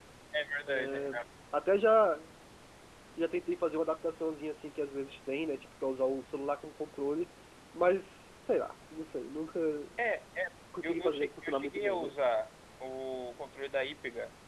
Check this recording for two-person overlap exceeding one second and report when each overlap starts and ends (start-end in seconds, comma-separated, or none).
10.8-12.1